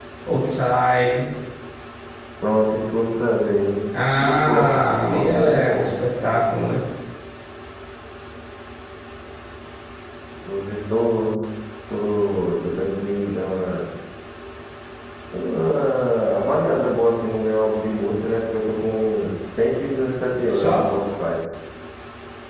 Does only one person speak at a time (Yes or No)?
No